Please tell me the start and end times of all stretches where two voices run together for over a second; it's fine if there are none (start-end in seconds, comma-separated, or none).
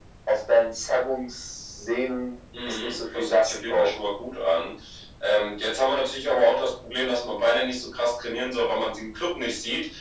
2.6-3.9